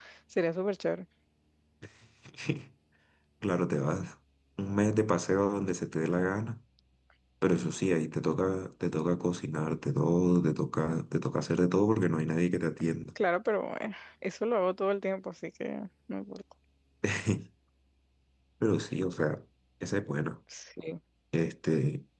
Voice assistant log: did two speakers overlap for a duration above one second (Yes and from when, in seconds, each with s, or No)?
No